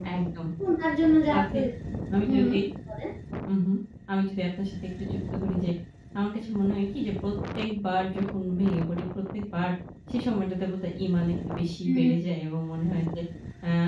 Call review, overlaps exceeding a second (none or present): none